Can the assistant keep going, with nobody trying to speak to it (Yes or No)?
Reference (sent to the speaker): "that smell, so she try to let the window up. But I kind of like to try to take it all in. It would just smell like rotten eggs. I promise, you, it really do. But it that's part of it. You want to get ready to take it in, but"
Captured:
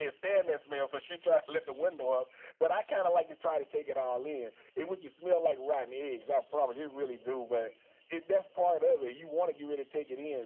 Yes